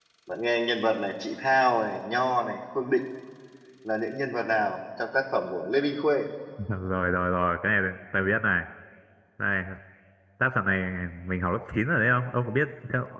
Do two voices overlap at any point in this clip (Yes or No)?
No